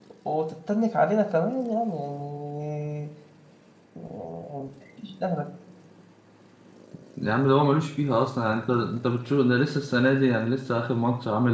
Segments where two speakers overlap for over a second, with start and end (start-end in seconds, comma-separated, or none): none